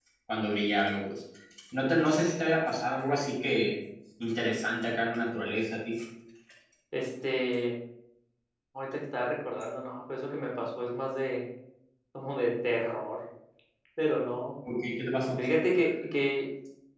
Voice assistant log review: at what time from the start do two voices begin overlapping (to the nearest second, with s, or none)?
none